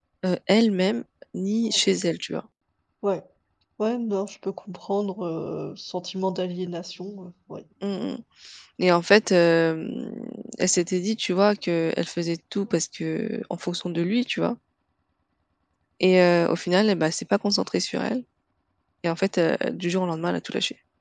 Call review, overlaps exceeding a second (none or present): none